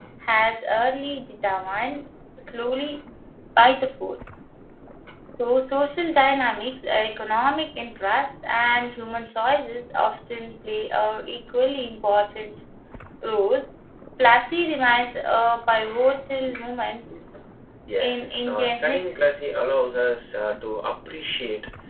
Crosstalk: present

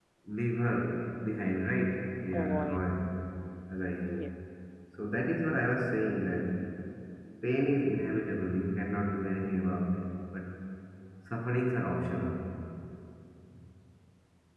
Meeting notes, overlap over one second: none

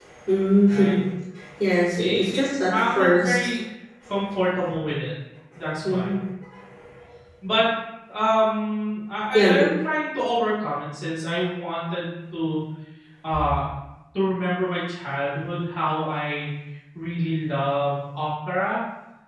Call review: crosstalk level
present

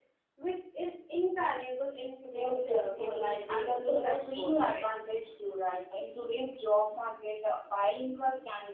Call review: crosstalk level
present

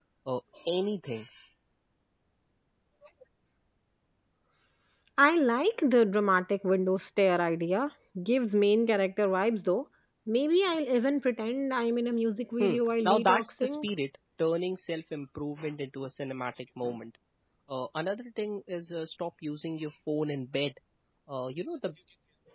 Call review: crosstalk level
present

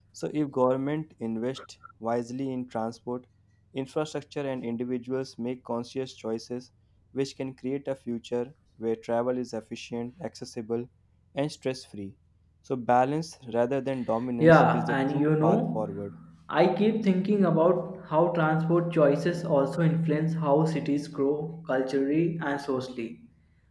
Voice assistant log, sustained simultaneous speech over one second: present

